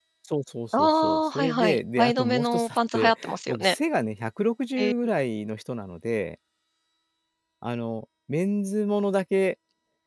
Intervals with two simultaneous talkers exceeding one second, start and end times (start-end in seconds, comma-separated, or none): 0.7-3.8